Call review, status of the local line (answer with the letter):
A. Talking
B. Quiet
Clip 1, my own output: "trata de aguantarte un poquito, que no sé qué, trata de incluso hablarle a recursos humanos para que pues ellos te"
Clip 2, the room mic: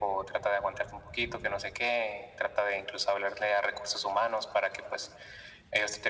B